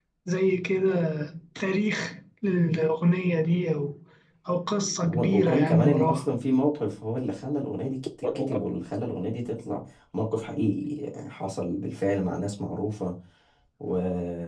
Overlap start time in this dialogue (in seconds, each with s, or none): 5.0 s